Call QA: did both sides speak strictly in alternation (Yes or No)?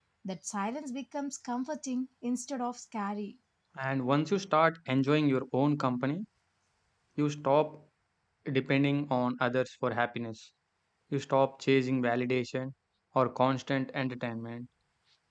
Yes